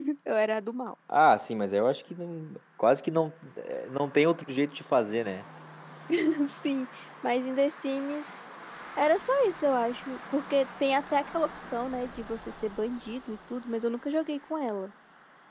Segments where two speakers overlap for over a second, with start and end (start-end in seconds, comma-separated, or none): none